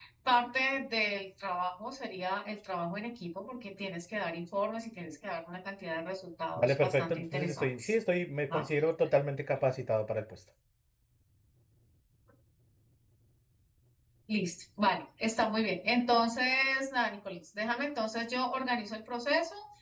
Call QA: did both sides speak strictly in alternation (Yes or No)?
No